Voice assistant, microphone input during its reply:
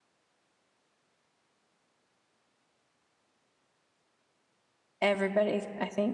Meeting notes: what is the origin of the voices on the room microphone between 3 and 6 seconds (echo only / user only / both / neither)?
user only